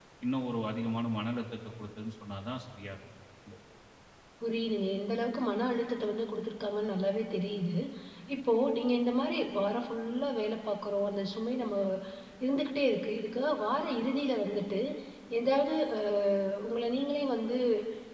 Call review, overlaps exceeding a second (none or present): none